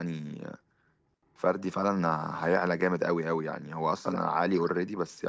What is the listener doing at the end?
listening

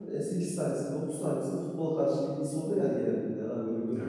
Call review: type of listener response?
taking over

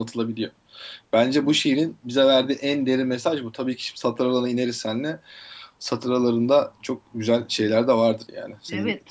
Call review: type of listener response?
taking over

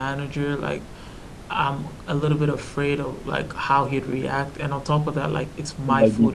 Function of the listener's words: listening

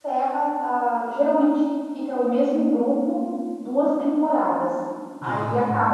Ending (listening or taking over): listening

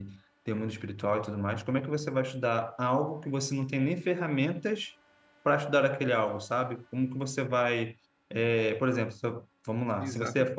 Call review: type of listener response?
taking over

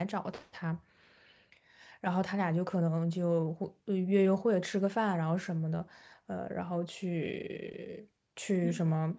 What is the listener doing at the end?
taking over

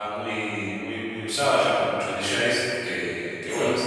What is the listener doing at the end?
listening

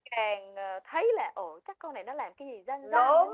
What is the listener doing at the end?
taking over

